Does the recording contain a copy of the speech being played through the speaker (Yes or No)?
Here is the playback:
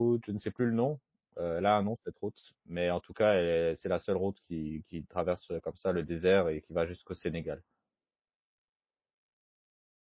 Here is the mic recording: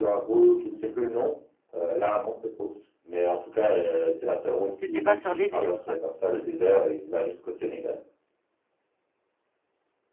Yes